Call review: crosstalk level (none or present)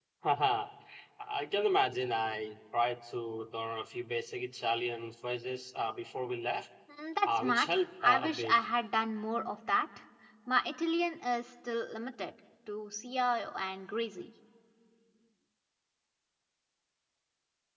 present